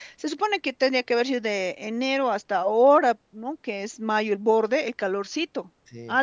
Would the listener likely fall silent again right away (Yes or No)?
Yes